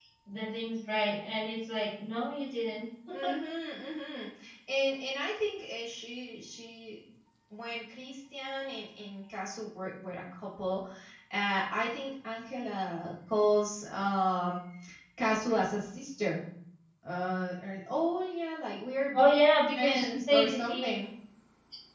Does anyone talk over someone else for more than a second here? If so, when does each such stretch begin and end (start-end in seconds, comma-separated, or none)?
19.8-21.0